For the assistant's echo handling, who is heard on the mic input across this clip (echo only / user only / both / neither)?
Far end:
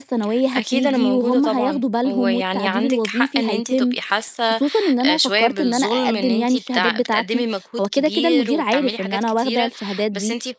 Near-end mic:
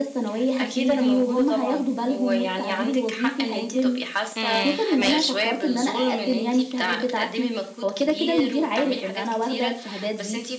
both